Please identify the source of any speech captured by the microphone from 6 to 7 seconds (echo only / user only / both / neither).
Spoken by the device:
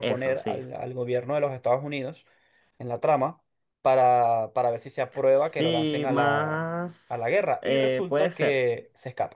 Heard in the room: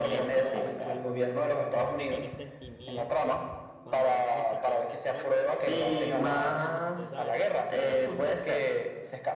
both